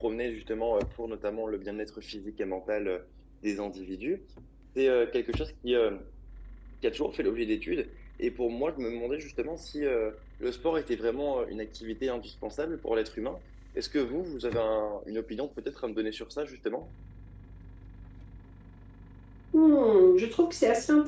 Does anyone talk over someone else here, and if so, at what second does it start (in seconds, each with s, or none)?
none